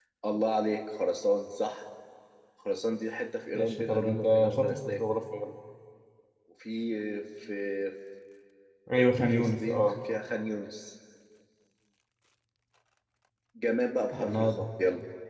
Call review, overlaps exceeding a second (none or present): present